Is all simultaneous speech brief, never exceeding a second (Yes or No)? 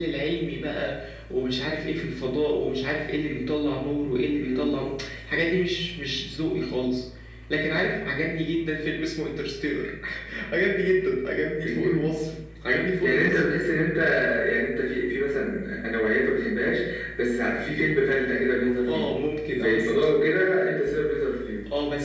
Yes